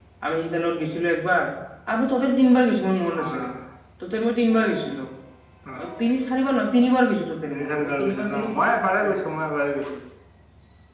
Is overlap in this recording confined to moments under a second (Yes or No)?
No